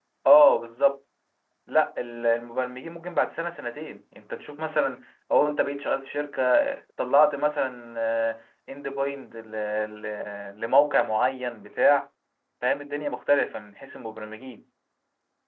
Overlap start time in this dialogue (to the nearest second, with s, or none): none